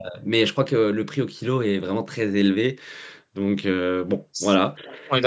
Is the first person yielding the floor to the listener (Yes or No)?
Yes